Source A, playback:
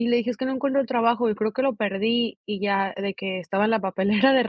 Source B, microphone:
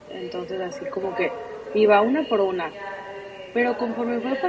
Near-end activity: present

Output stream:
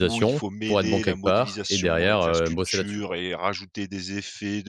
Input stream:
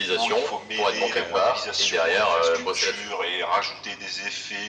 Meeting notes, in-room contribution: present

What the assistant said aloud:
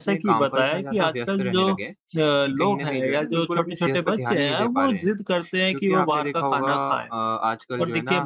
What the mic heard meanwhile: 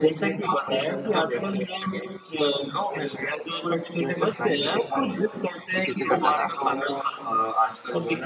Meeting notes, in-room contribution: present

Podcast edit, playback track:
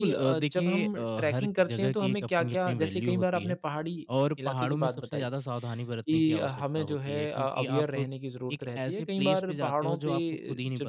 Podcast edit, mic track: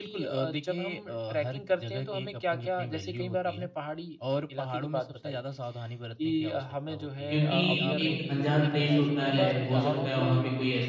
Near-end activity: present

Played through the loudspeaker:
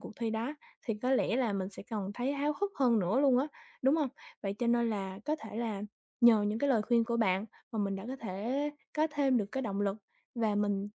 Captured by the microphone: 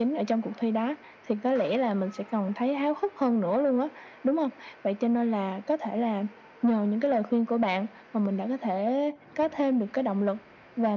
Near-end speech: none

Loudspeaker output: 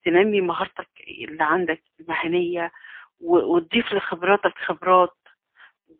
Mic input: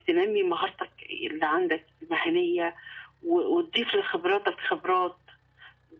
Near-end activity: none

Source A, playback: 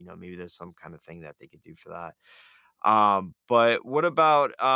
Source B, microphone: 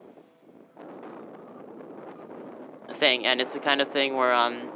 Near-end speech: present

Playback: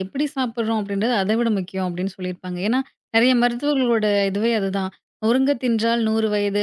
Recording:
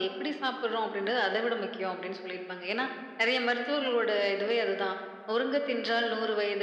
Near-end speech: none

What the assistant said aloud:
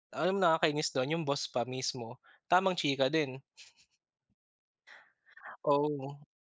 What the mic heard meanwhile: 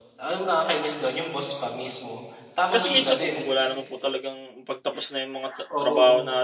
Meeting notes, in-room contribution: present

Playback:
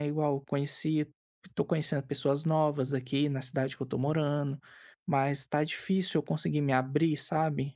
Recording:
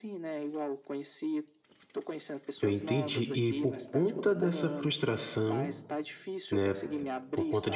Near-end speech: present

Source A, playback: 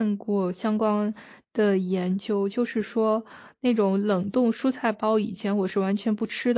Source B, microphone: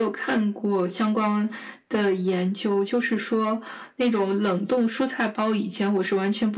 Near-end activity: none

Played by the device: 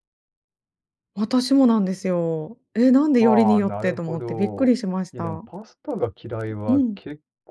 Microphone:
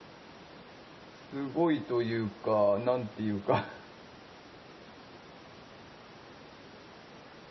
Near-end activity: present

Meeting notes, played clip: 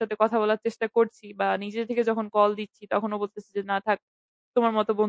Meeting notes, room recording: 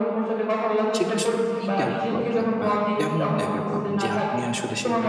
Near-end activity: present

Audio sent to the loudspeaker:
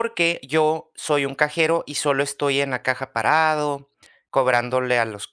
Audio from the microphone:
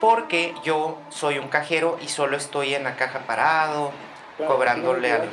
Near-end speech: present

